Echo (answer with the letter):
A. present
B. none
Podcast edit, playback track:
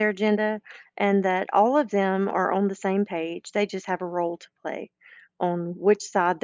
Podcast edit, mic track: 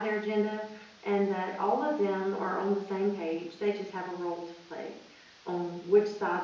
A